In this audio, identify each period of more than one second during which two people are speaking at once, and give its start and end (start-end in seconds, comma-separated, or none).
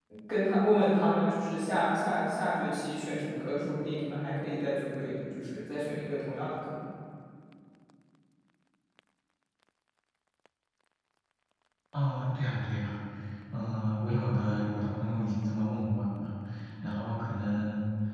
none